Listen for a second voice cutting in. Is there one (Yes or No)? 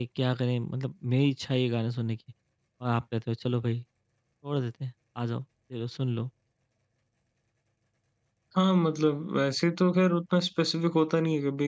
No